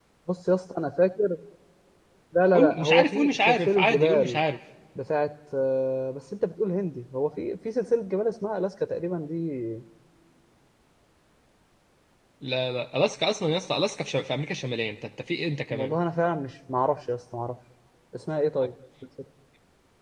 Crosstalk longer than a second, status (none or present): present